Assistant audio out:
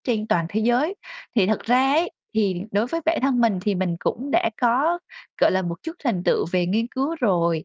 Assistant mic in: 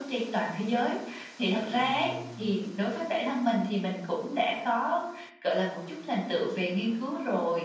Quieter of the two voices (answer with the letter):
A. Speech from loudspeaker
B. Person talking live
B